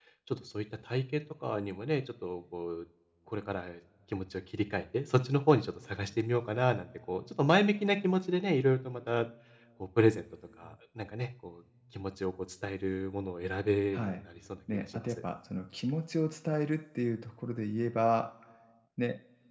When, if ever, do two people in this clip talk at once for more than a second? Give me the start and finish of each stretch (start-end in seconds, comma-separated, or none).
none